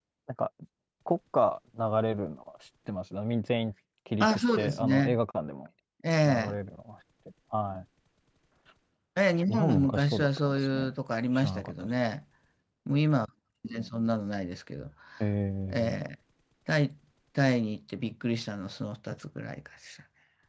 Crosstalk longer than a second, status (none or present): present